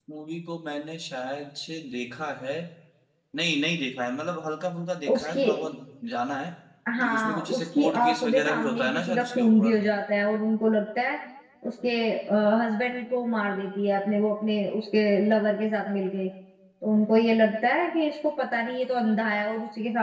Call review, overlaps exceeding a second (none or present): present